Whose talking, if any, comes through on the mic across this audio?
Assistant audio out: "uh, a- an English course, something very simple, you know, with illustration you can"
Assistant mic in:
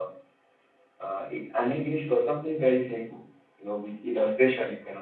echo only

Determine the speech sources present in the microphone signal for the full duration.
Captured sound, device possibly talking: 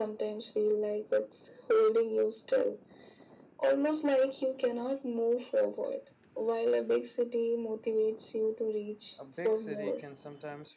both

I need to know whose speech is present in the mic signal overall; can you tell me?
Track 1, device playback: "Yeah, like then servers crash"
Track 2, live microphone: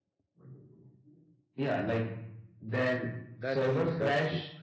both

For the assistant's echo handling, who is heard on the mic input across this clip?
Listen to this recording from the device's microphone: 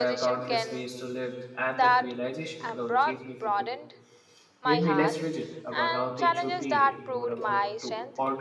both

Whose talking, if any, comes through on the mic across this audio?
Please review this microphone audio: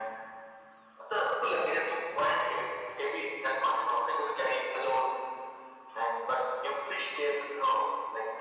echo only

